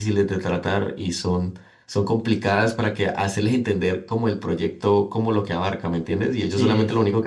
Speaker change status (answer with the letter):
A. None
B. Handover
A